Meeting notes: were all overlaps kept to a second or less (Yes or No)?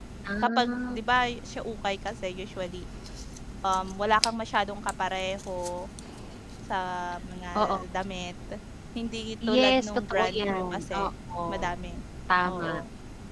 No